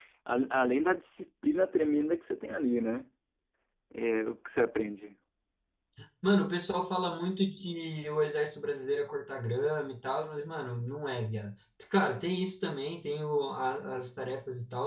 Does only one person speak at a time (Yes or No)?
Yes